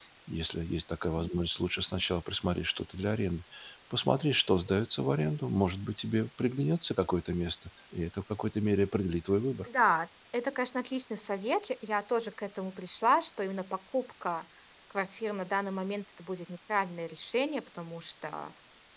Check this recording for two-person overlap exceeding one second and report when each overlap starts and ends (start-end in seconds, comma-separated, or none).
none